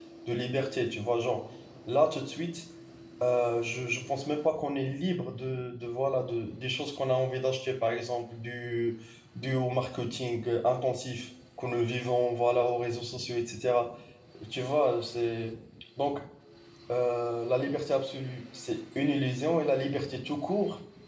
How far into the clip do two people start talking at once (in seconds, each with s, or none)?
none